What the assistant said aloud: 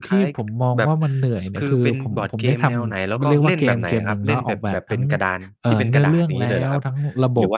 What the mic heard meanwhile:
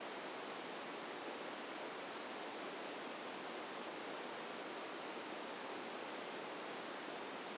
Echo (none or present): none